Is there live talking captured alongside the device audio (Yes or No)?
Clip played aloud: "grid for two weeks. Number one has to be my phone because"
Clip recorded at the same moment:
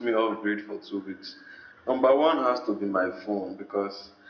No